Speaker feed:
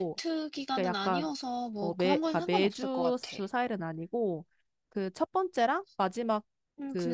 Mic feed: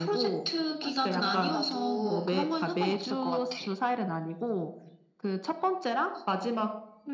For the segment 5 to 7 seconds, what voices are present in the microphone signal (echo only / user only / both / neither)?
echo only